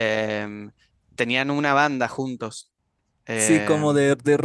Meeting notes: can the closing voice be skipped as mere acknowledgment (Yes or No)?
No